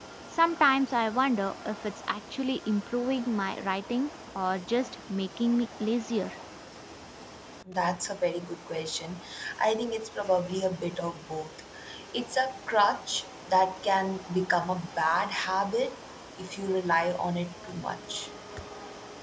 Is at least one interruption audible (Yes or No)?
No